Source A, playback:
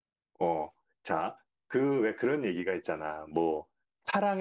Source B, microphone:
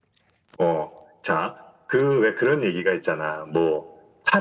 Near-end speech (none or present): none